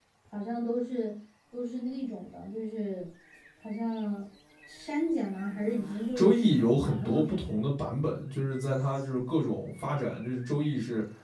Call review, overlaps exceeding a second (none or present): present